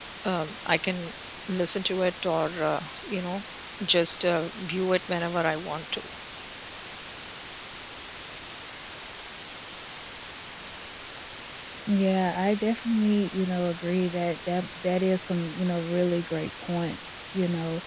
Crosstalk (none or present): none